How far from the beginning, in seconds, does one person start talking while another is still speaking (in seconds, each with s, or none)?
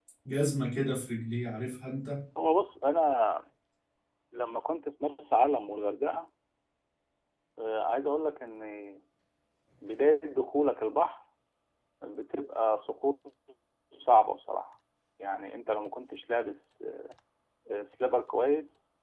none